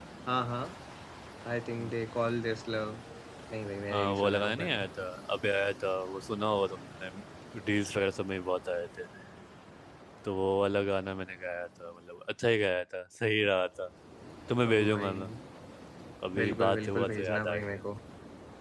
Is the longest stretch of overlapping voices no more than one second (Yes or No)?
No